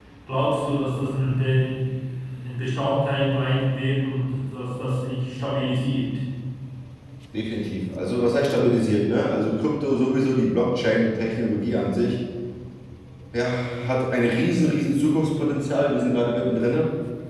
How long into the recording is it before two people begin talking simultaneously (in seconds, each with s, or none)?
none